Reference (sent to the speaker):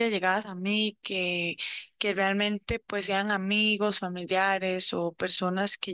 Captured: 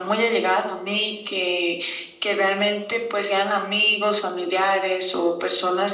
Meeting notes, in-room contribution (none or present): none